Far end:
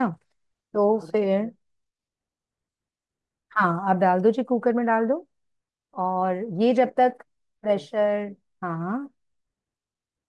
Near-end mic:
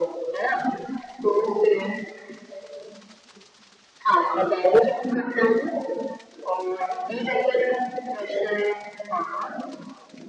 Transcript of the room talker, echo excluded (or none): none